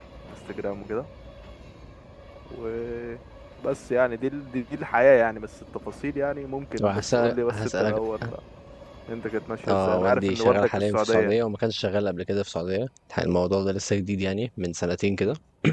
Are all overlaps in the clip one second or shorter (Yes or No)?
No